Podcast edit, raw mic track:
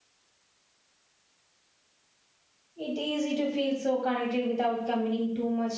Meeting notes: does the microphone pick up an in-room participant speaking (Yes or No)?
Yes